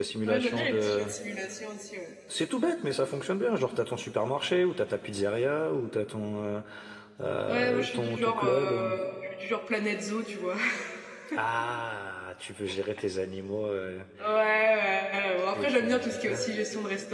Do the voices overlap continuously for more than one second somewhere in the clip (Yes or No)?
Yes